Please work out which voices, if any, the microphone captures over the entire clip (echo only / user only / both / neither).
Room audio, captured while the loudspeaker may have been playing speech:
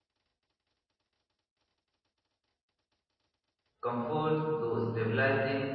user only